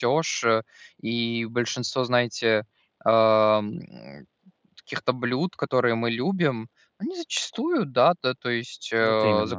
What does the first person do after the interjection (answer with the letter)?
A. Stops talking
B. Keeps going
B